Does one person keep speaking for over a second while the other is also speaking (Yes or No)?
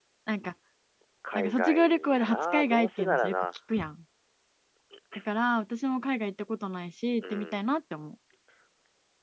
Yes